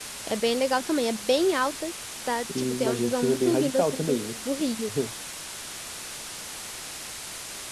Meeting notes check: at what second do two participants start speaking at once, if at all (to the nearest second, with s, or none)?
2 s